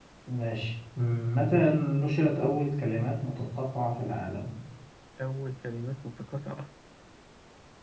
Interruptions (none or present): none